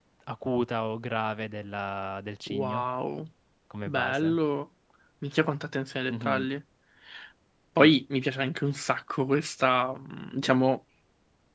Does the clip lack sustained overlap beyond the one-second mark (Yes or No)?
Yes